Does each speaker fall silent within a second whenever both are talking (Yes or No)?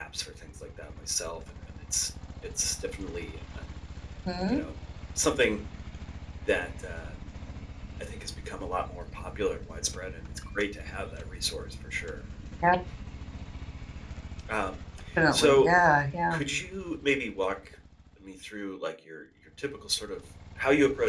Yes